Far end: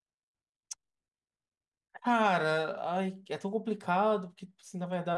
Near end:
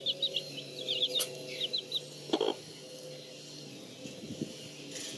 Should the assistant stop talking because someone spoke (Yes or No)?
No